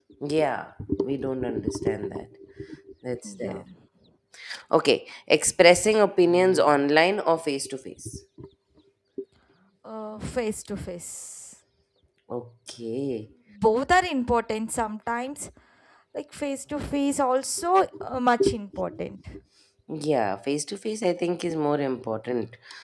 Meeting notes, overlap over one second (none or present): none